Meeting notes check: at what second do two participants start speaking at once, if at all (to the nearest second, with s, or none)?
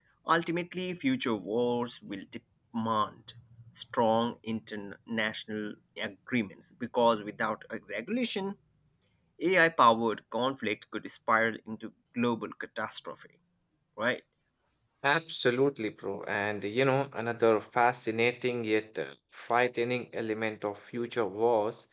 none